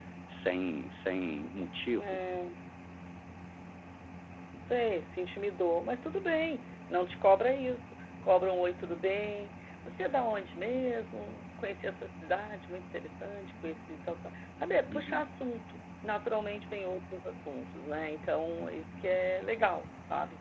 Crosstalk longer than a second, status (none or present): none